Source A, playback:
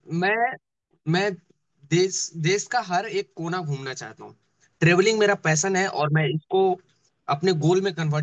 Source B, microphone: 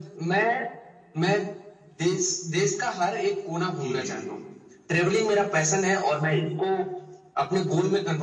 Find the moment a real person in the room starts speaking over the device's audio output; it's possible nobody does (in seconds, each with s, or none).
3.8 s